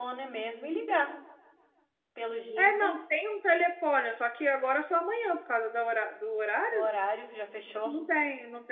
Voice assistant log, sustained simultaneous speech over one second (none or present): none